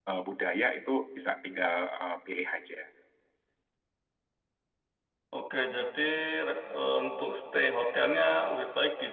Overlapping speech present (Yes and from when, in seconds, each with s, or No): No